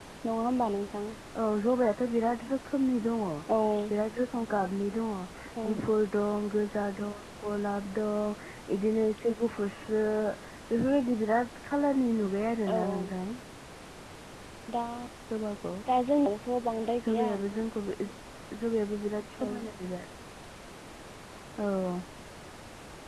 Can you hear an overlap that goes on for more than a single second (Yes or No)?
No